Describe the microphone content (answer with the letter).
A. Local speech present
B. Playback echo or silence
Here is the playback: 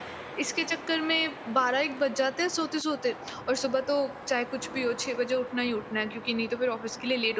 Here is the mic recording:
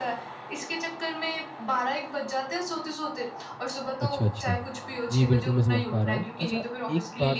A